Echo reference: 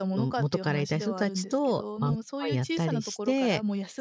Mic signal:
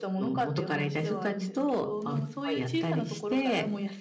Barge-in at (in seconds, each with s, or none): none